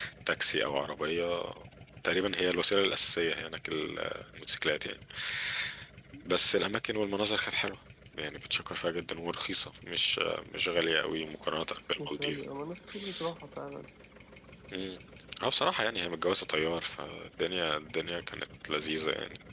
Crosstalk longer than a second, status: none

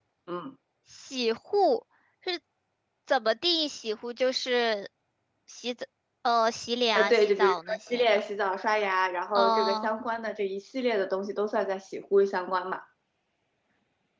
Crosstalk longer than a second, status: present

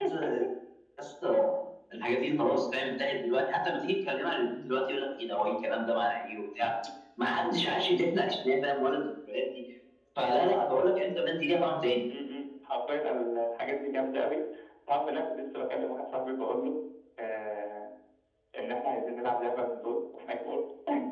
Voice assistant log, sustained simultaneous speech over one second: none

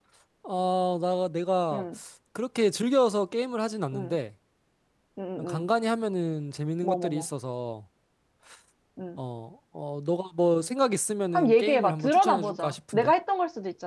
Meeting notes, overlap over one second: present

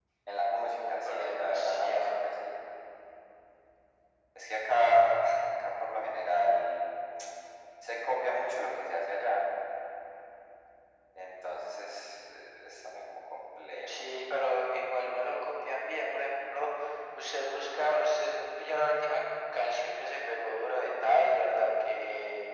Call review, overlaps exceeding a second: present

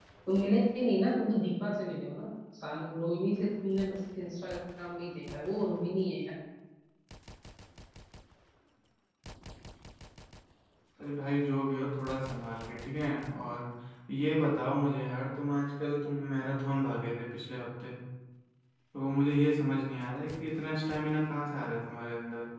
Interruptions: none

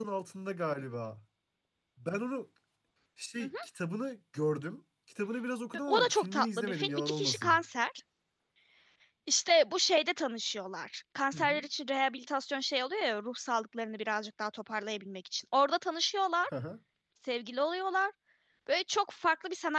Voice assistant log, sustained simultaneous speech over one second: present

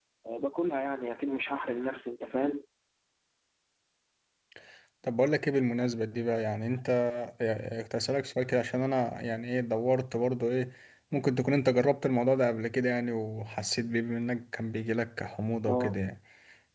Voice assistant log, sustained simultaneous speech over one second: none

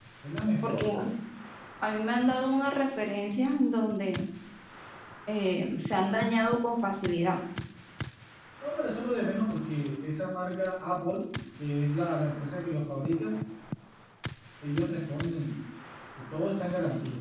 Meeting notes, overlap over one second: none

